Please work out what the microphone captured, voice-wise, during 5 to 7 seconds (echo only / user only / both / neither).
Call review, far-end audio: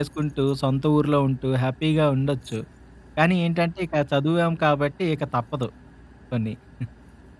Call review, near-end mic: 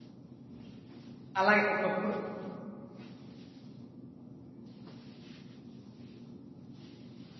neither